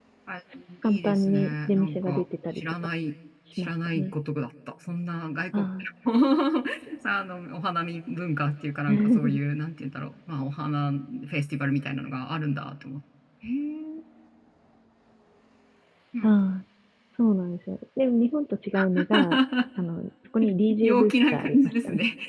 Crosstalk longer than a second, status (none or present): present